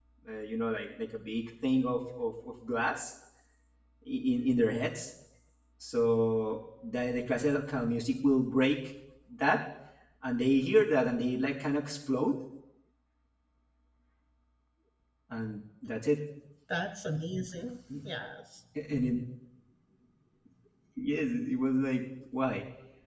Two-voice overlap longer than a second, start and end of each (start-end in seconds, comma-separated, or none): none